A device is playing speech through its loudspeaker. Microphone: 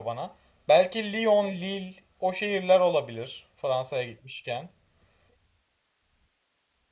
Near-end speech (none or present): present